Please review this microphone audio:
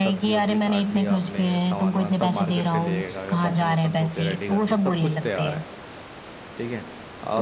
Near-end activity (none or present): present